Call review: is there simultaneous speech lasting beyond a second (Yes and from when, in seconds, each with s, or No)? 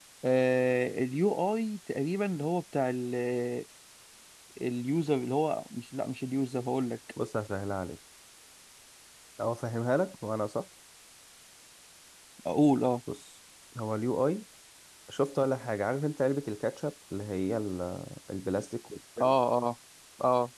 No